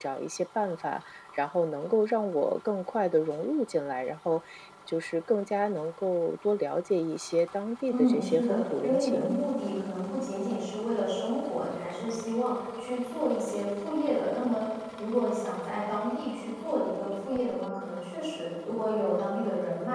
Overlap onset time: 7.9 s

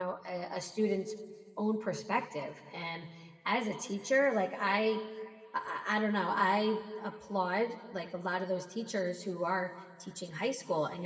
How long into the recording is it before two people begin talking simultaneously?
none

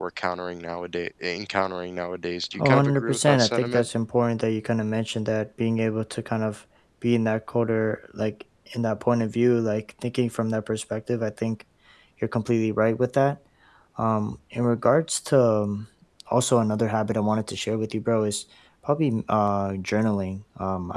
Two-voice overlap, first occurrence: 2.6 s

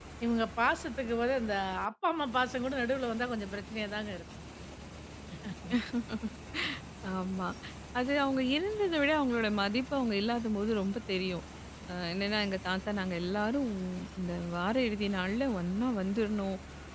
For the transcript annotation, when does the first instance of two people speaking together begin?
none

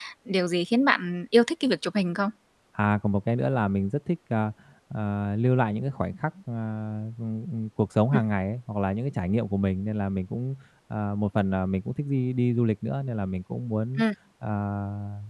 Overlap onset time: none

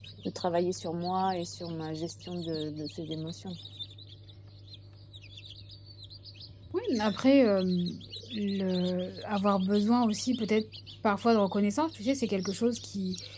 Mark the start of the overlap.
none

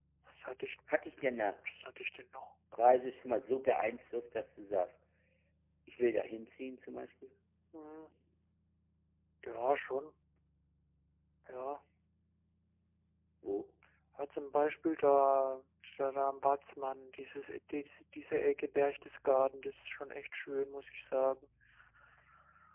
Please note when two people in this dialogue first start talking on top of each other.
none

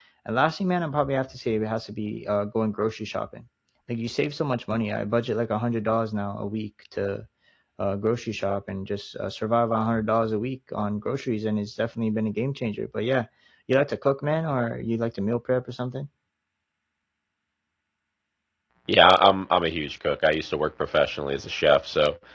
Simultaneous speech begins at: none

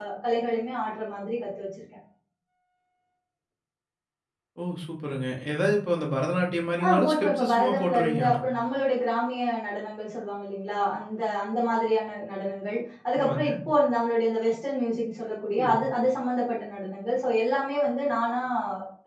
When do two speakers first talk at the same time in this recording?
6.8 s

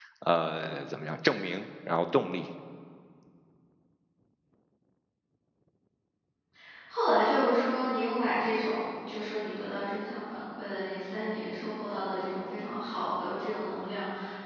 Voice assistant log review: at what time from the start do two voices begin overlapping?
none

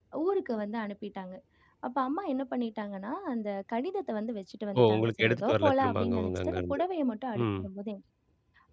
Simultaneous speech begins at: 4.8 s

